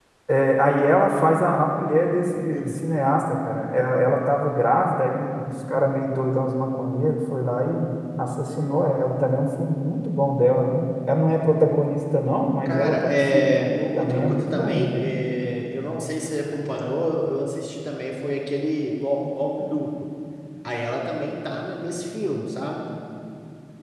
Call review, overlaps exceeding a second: present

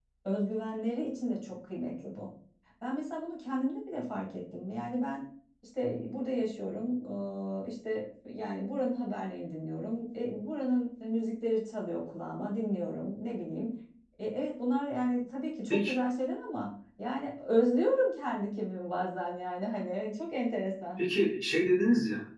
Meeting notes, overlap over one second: none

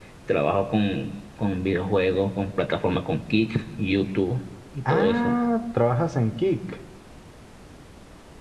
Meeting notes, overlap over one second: none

